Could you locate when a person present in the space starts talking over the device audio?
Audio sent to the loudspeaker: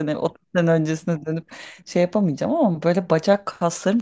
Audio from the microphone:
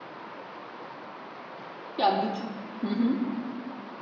2.0 s

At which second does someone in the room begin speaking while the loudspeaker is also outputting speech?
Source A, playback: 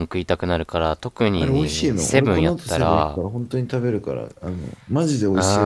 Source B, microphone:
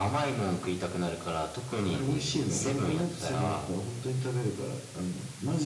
none

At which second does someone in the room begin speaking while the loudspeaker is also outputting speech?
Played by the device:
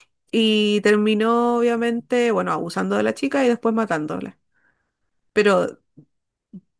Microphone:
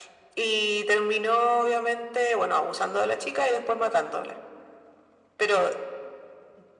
none

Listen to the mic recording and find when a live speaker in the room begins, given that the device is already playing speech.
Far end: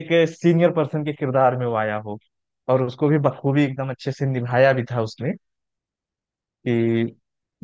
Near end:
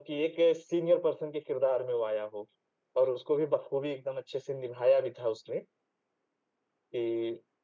none

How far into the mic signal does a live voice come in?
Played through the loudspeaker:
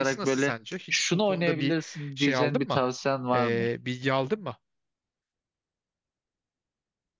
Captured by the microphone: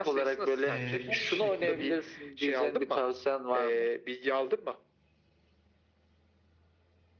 0.7 s

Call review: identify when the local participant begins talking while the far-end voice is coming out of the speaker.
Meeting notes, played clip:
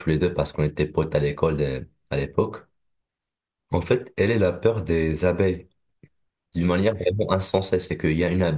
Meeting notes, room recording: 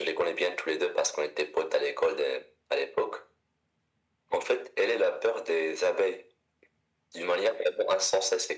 none

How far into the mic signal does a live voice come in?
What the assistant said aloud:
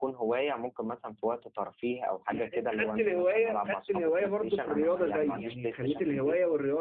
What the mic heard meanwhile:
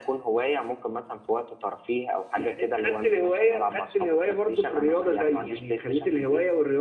none

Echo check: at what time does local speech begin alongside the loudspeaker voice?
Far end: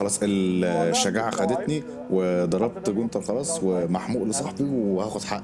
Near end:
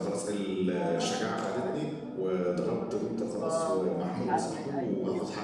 3.1 s

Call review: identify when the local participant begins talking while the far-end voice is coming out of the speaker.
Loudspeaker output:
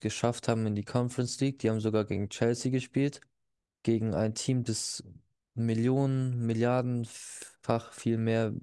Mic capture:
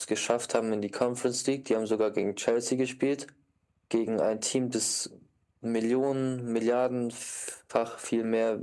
none

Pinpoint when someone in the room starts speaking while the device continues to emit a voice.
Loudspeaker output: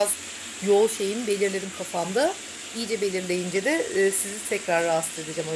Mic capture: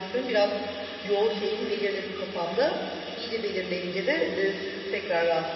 none

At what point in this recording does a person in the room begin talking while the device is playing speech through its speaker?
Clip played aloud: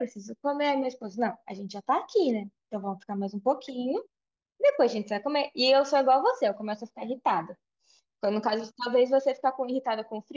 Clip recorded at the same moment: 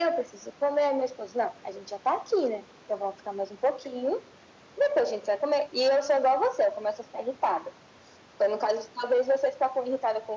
none

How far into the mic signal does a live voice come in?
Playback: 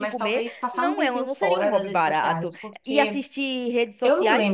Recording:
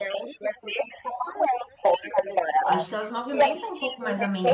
2.6 s

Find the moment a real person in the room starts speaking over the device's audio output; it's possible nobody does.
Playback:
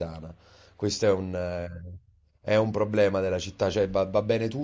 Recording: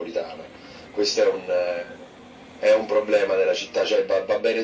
none

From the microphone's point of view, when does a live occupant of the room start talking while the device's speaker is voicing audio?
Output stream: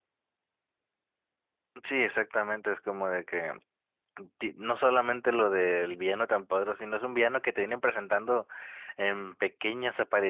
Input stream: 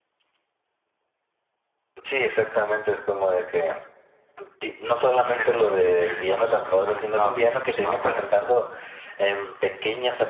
5.2 s

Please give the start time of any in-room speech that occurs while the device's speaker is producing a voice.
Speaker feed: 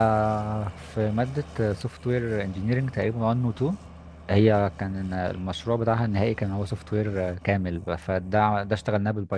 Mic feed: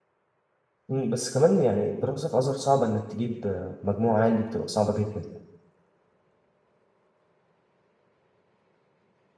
0.9 s

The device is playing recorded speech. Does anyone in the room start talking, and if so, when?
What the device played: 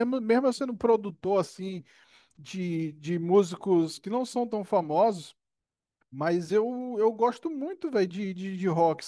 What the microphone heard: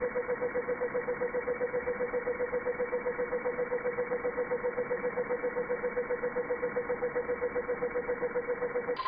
none

